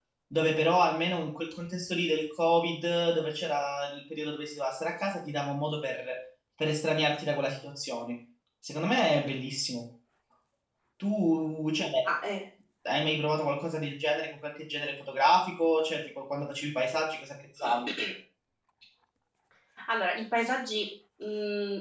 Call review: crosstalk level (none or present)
none